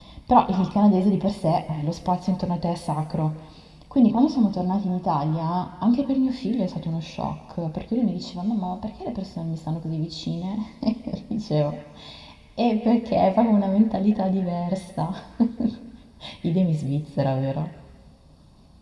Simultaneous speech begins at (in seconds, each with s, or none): none